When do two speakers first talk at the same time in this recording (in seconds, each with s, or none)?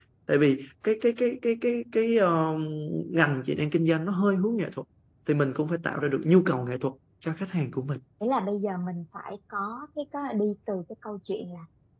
none